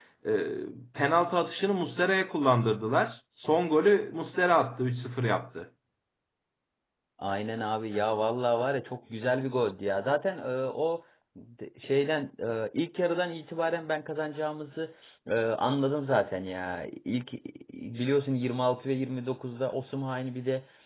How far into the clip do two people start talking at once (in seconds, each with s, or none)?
none